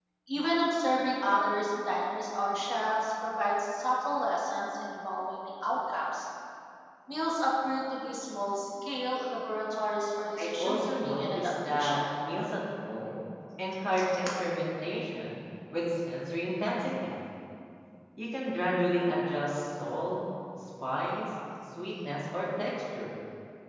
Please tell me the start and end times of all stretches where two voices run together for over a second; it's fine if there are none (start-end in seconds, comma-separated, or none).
10.4-12.0